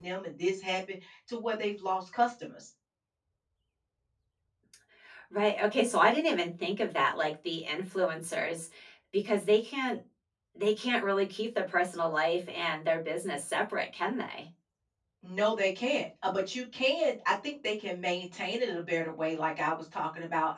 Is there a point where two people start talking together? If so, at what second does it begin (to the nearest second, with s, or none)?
none